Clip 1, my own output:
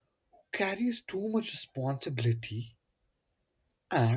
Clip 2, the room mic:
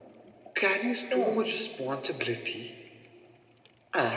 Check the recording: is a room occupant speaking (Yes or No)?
Yes